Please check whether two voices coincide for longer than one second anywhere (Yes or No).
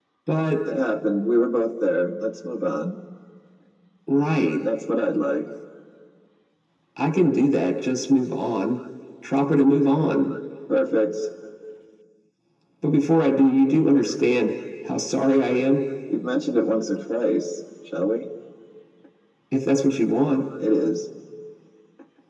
No